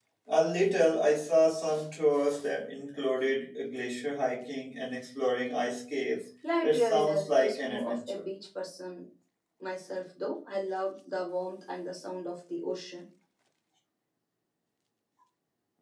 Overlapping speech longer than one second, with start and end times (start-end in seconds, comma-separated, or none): 6.6-8.2